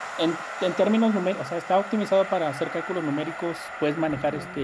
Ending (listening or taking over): listening